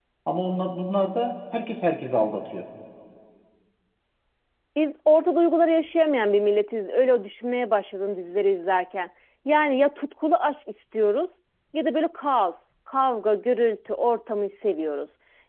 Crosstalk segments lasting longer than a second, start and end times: none

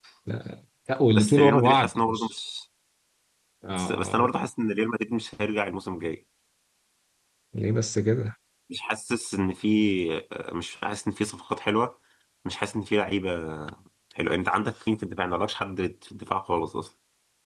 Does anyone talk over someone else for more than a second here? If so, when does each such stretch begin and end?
1.1-2.3

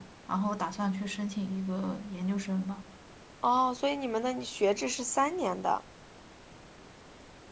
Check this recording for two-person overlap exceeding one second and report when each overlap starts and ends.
none

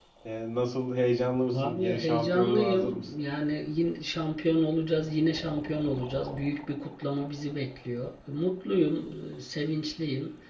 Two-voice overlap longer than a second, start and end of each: 1.5-3.1

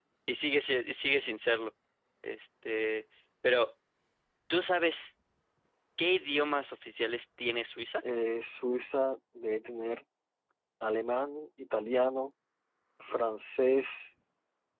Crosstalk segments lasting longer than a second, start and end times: none

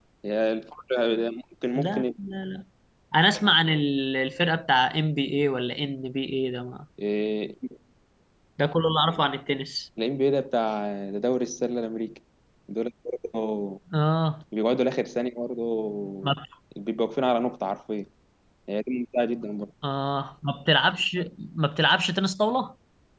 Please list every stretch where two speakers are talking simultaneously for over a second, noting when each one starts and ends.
none

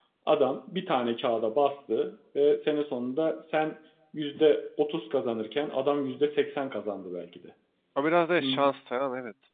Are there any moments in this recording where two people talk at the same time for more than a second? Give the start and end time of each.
none

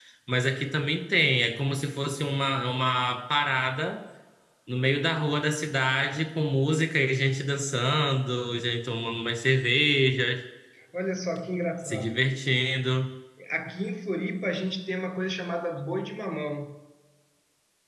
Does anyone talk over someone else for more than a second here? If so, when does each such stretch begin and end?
none

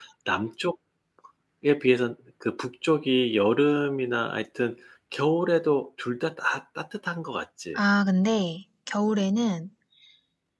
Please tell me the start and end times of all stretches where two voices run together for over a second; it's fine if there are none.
none

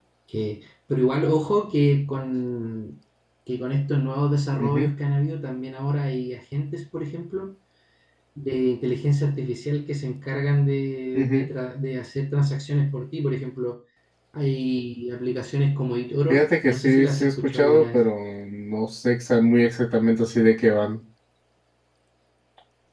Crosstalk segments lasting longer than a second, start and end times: 16.3-18.0

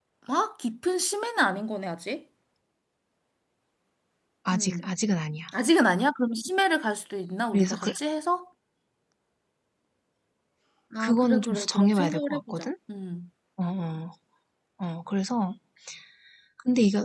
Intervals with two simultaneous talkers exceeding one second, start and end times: 11.0-12.7

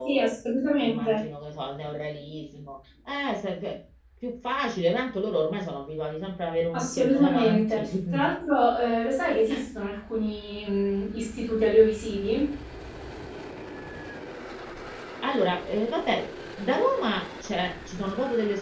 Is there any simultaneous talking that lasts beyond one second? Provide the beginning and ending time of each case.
6.7-8.3

